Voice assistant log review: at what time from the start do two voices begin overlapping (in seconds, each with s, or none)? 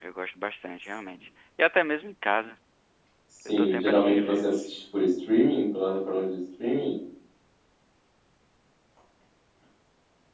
3.5 s